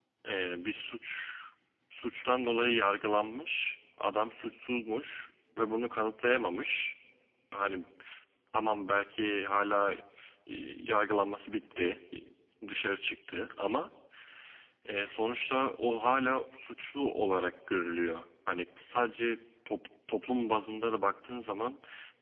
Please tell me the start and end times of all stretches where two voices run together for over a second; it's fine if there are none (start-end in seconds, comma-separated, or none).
none